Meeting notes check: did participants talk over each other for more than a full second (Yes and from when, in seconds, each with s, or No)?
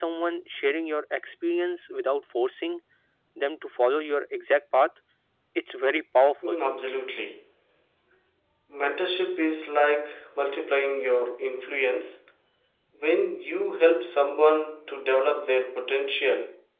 No